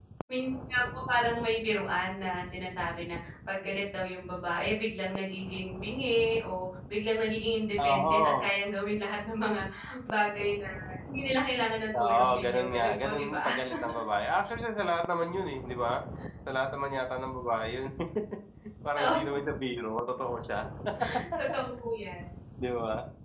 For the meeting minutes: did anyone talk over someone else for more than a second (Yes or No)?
Yes